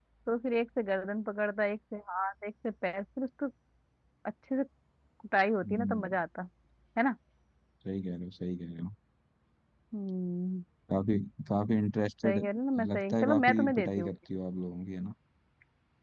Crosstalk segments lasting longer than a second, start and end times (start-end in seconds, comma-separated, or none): 12.9-14.1